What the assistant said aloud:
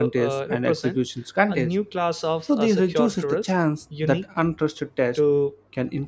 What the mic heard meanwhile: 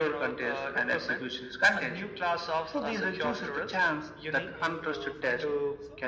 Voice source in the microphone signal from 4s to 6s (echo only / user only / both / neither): both